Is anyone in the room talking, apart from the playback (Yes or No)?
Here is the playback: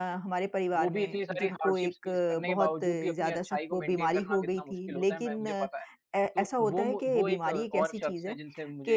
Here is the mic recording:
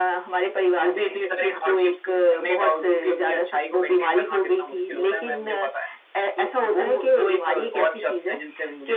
No